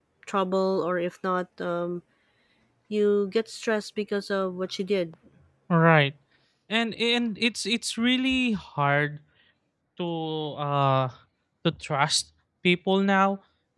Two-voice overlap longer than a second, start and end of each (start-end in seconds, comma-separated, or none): none